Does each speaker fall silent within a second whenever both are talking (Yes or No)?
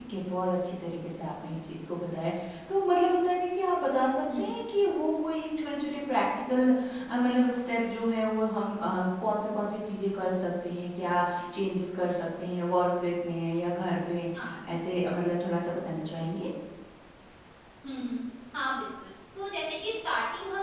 Yes